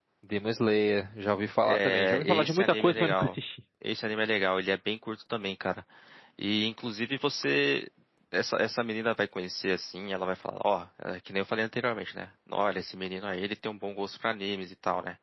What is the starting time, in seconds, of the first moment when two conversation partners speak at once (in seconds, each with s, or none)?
1.6 s